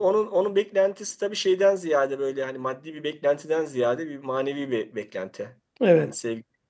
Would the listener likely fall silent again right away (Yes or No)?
Yes